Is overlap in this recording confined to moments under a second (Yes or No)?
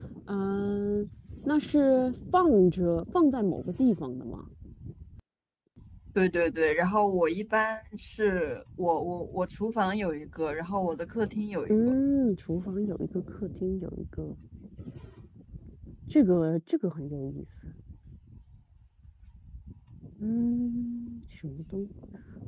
Yes